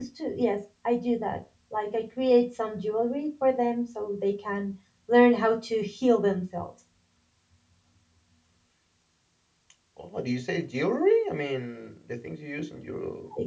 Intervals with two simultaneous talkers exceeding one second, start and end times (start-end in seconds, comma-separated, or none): none